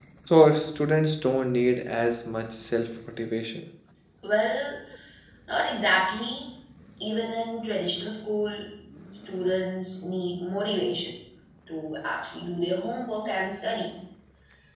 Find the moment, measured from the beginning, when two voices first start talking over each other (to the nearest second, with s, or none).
none